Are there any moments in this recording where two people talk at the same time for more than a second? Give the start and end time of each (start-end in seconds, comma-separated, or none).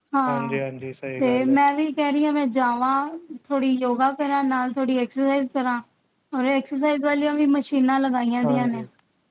none